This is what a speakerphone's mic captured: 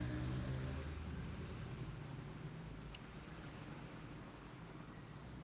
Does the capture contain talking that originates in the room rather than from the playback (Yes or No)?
No